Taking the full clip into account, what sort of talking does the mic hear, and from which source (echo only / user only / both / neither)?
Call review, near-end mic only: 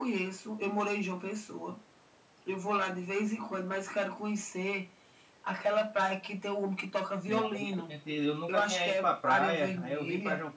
both